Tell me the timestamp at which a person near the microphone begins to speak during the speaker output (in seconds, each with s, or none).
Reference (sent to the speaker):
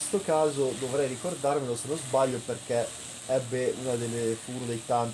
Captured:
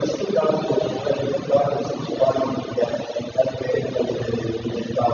none